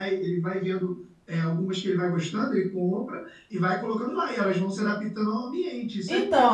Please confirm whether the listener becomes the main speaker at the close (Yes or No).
Yes